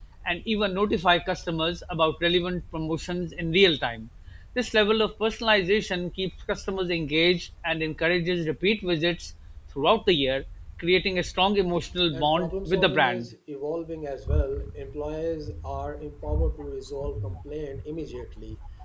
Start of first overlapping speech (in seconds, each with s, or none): 12.1 s